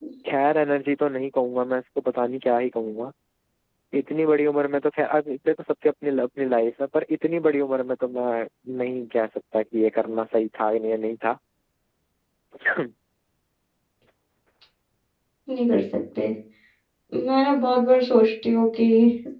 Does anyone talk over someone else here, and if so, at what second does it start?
none

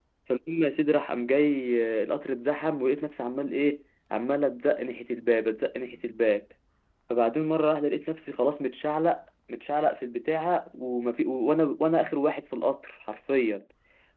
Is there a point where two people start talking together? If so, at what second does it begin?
none

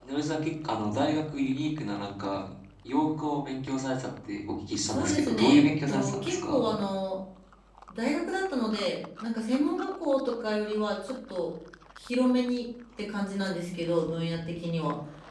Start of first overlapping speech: 4.9 s

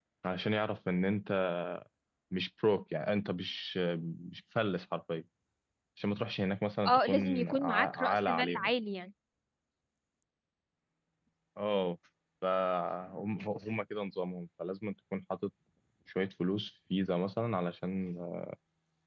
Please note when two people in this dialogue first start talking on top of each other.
6.8 s

